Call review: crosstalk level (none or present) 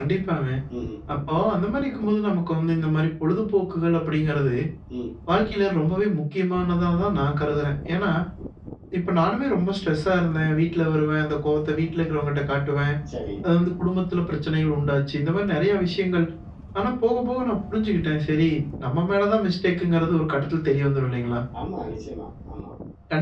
none